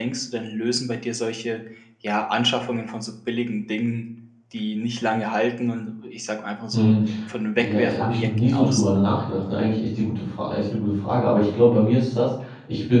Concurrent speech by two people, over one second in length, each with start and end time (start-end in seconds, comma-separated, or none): 7.6-8.8